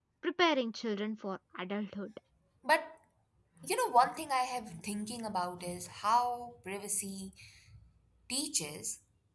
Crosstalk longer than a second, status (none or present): none